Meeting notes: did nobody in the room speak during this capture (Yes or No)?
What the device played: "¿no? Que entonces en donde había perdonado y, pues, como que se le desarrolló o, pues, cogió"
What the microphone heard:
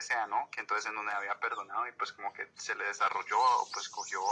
Yes